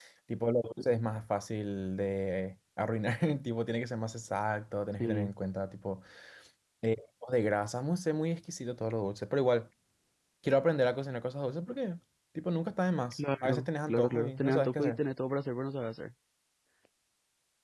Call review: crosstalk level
present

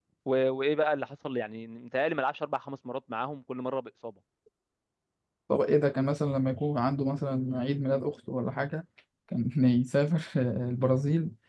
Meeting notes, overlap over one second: none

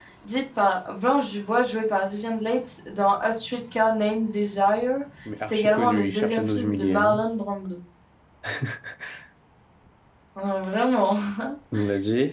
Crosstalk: present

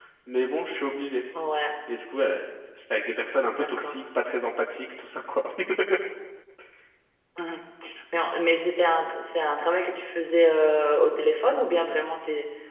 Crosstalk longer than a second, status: none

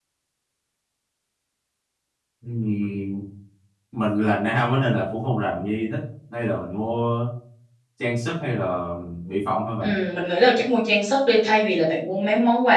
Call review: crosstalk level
none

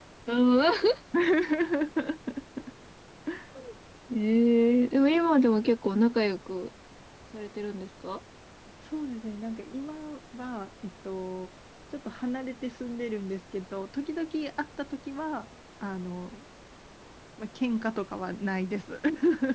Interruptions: none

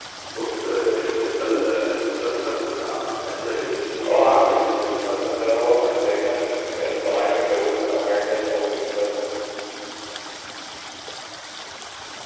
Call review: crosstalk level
present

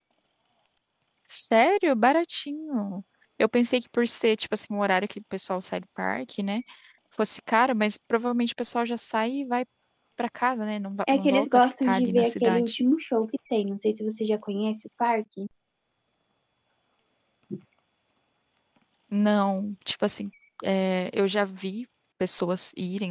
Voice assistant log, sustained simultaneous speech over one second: present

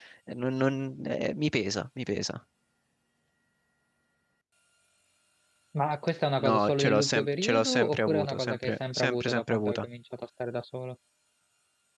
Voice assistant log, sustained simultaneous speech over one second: present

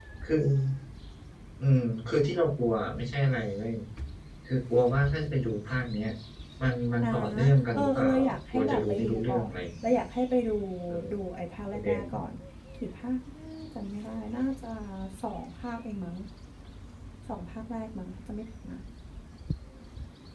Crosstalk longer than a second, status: present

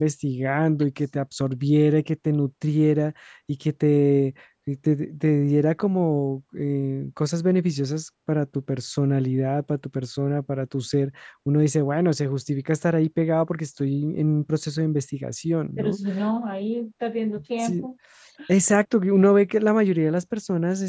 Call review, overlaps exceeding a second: none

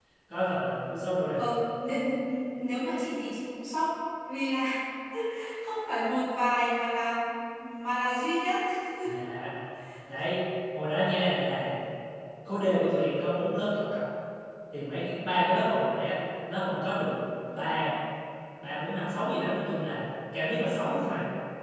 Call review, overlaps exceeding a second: none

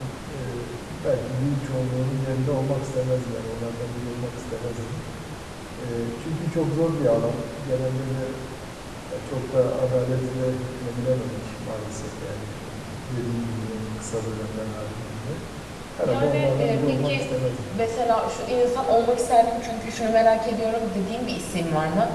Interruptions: present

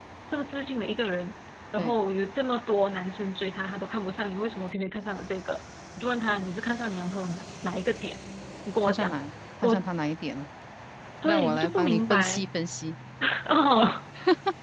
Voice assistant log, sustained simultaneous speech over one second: present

